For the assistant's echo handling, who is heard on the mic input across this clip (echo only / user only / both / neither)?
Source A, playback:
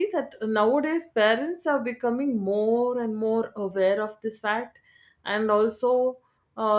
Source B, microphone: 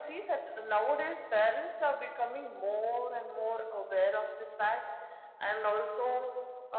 echo only